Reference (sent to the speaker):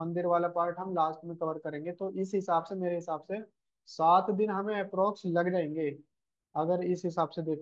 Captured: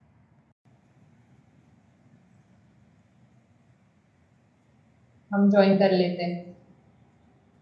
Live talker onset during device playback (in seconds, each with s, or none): 5.3 s